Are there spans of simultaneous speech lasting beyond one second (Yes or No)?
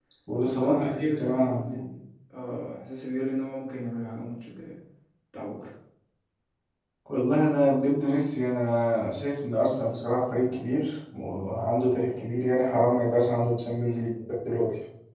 Yes